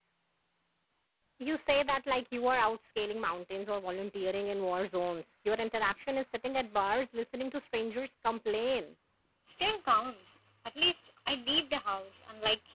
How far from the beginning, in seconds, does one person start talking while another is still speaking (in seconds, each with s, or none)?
none